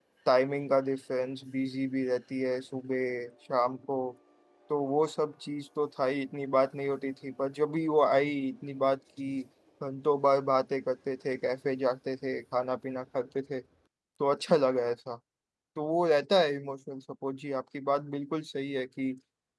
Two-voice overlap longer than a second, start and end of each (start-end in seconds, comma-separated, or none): none